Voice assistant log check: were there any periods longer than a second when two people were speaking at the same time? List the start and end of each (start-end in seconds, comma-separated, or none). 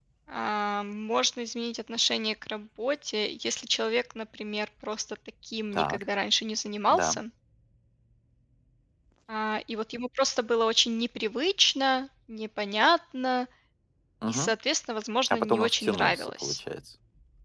15.3-16.6